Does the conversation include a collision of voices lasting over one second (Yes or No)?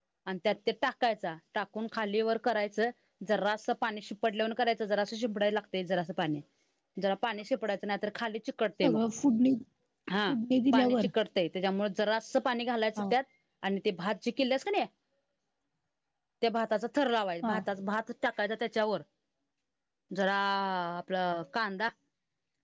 No